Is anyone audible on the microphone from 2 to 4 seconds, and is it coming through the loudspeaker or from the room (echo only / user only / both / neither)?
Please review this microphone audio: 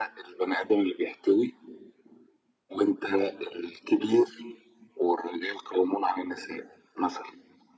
echo only